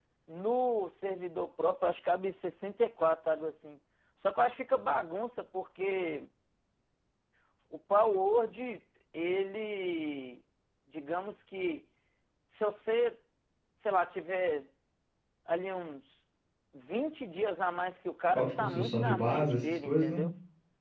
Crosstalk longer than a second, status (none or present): present